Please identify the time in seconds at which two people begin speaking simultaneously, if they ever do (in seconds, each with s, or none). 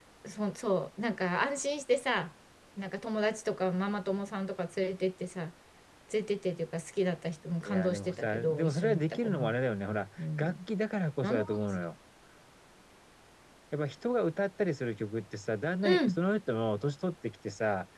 7.6 s